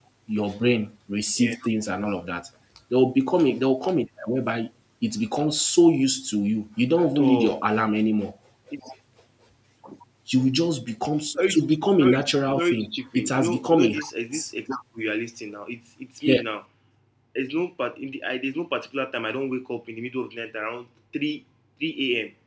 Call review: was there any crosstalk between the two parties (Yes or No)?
Yes